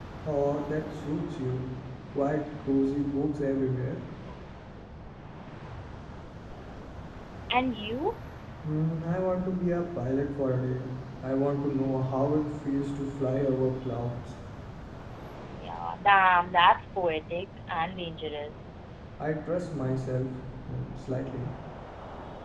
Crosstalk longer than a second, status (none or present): none